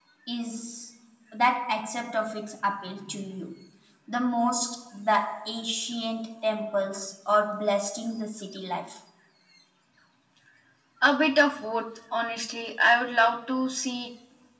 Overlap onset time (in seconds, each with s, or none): none